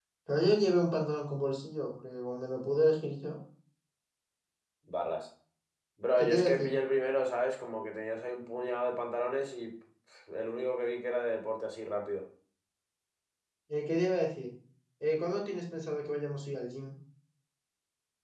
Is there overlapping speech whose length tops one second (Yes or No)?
No